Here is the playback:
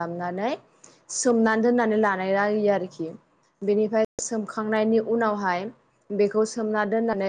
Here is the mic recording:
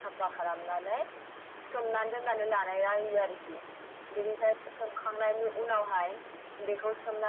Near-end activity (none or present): none